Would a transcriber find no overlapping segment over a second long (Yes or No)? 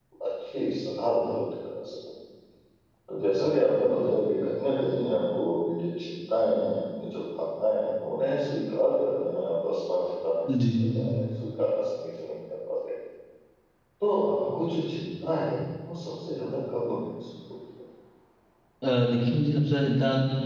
Yes